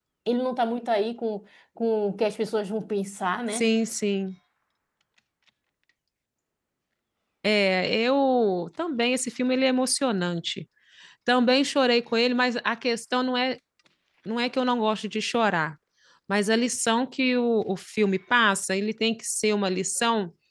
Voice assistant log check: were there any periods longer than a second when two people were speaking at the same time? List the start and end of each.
none

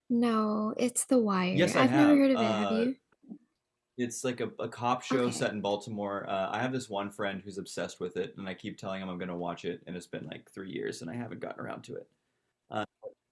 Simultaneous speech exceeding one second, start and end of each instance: 1.5-2.9

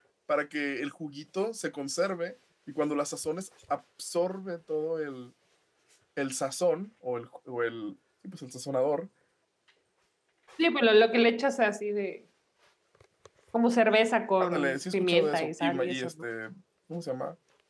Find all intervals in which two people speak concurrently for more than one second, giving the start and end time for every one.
14.4-16.1

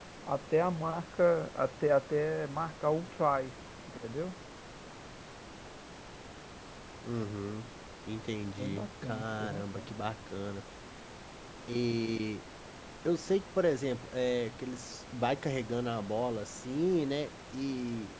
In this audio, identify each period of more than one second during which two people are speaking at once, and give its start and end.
8.6-9.9

